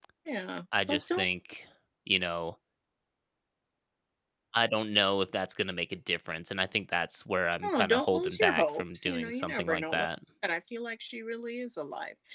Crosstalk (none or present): present